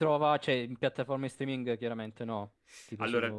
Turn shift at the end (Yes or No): Yes